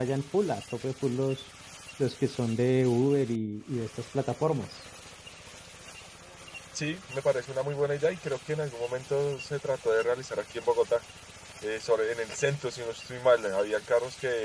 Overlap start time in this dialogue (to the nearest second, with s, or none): none